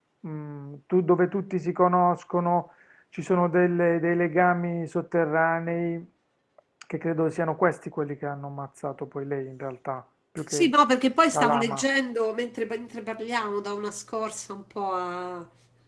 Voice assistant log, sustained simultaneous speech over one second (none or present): none